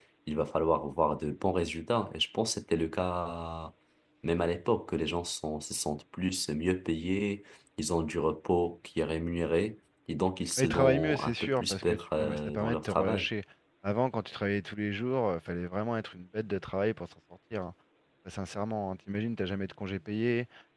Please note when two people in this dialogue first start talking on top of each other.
10.6 s

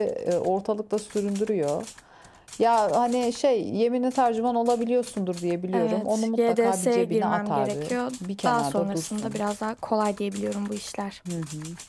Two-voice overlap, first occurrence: 5.7 s

